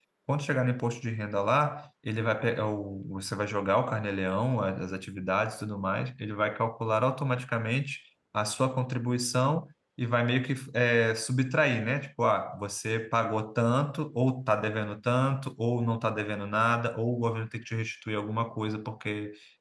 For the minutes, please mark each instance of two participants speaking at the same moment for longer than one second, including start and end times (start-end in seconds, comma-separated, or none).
none